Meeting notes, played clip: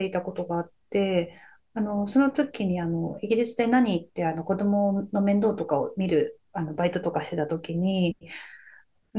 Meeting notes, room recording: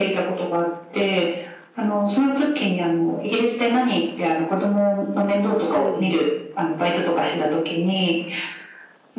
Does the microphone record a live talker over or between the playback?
Yes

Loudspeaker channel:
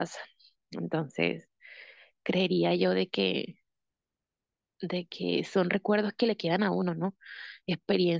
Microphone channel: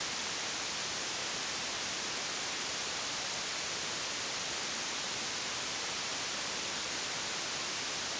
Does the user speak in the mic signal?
No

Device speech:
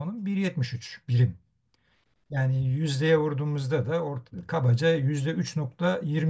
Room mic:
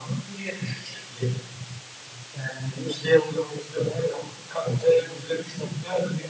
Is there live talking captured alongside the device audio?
No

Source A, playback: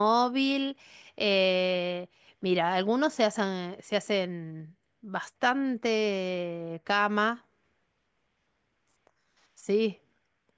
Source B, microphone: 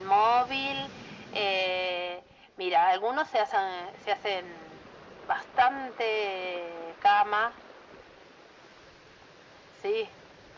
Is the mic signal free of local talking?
Yes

